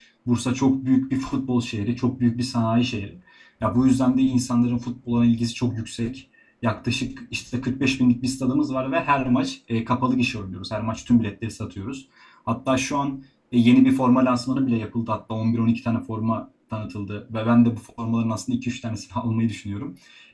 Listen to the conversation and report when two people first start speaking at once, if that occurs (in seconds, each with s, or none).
none